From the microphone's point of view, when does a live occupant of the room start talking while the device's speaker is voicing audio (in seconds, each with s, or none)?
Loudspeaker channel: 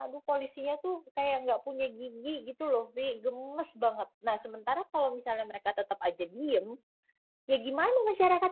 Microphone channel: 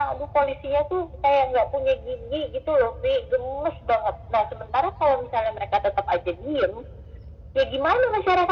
none